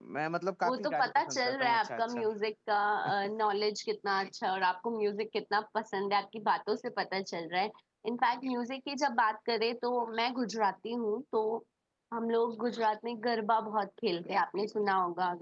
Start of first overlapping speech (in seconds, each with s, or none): 0.6 s